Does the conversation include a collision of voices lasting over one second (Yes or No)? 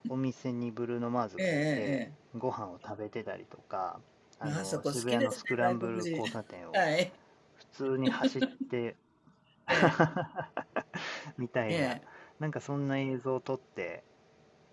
Yes